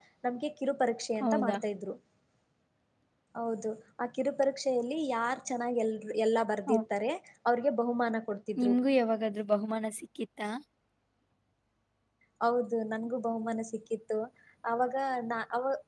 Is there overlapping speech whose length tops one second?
No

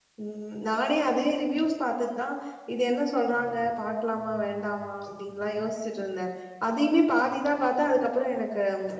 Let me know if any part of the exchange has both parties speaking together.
No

